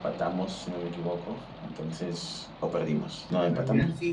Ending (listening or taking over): taking over